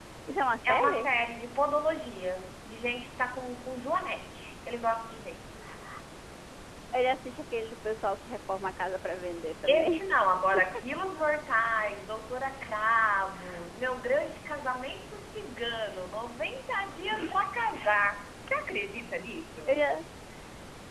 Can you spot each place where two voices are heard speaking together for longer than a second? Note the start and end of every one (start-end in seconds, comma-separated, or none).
none